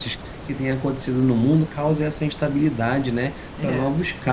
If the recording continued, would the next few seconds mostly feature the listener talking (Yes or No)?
No